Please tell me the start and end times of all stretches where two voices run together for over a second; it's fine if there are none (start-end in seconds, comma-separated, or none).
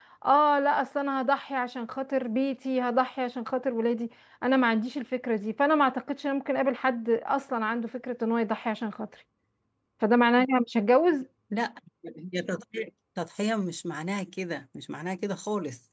none